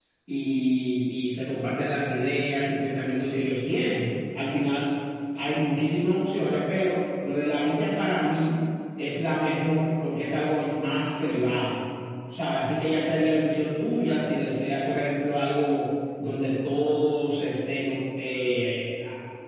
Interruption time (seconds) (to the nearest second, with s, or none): none